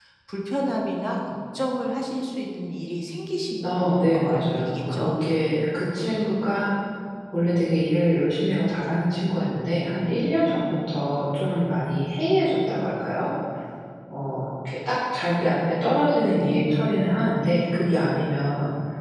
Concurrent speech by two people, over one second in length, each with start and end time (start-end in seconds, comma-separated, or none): 3.6-5.2